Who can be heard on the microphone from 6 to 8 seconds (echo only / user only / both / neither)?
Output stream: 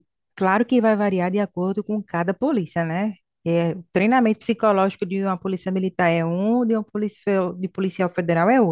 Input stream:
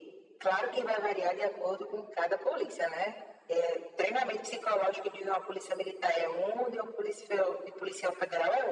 echo only